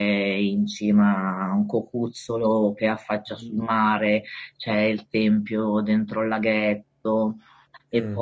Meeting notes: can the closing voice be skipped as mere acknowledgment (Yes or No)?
Yes